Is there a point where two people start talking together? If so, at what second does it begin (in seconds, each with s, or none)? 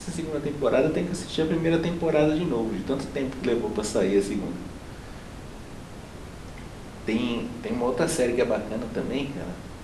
none